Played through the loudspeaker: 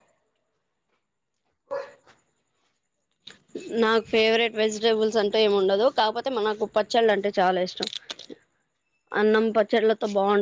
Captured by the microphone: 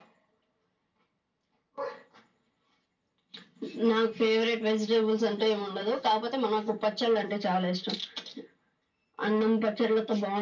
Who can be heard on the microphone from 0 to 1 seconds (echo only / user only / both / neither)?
neither